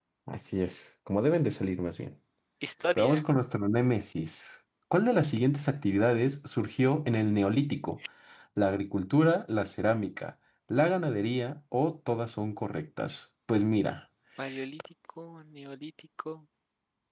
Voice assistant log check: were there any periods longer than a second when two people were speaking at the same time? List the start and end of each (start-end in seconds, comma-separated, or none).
none